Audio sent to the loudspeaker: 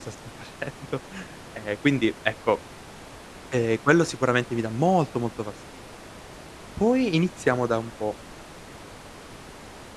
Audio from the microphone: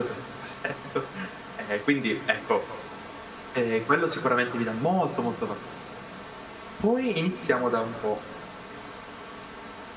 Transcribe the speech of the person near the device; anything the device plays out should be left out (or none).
none